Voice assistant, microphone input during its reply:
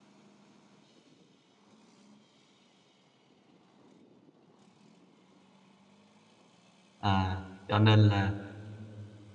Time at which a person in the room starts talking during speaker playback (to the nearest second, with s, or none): 7 s